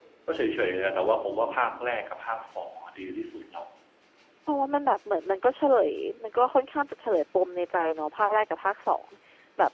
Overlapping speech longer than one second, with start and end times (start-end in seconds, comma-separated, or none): none